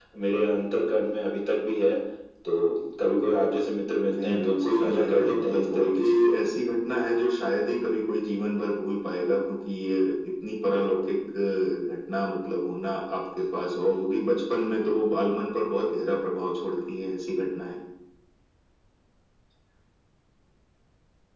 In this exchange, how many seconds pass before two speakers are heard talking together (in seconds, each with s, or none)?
4.1 s